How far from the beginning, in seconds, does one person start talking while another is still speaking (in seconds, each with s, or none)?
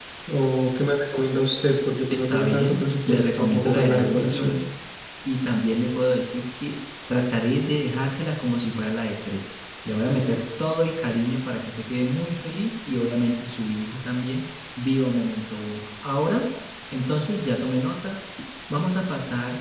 2.1 s